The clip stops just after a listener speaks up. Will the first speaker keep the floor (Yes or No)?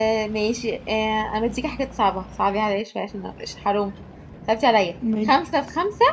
Yes